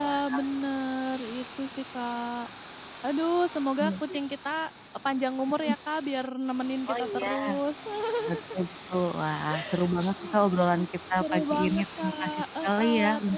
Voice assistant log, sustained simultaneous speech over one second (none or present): present